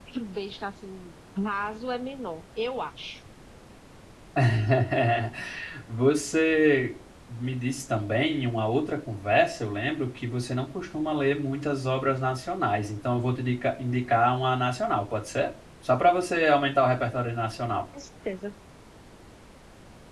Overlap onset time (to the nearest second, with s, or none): none